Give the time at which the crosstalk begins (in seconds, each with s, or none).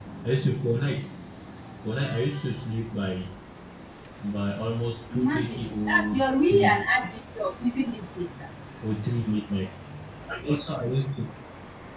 5.1 s